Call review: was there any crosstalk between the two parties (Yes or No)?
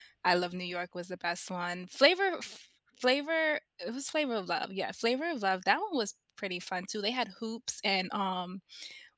No